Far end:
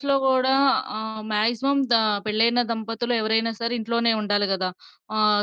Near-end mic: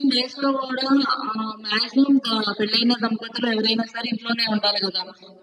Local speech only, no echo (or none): none